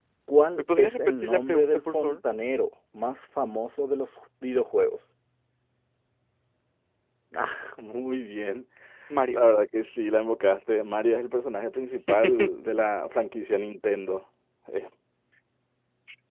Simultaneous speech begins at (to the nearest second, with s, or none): 1 s